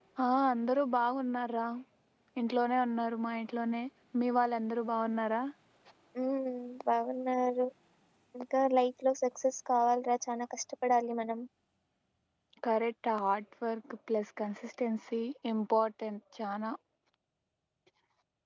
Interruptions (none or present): none